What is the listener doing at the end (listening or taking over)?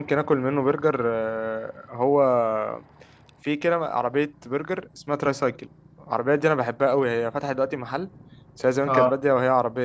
listening